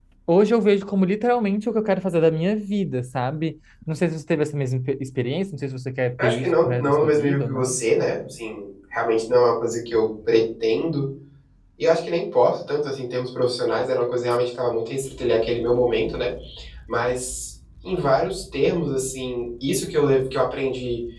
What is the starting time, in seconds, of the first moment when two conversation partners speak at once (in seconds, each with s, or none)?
6.2 s